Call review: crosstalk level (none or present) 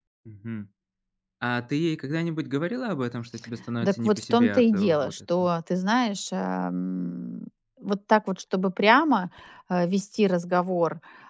present